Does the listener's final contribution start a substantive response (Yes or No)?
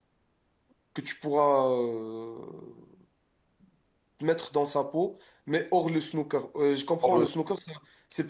No